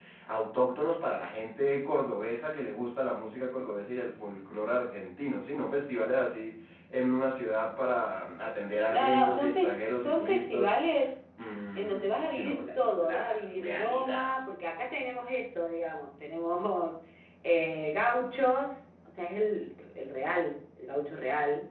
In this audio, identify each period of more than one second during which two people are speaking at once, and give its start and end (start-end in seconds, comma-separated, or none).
8.9-10.7, 11.8-14.3